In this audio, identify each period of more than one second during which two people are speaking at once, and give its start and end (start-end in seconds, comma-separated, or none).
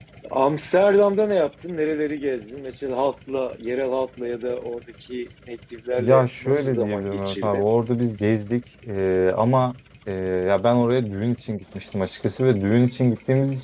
6.0-7.6